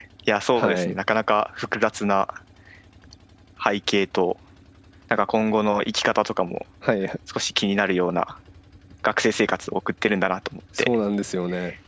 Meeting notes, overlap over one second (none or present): none